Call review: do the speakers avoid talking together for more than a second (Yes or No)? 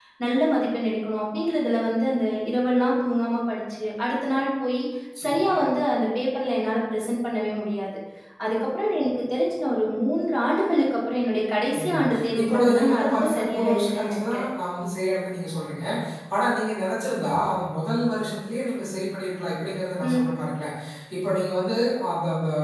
No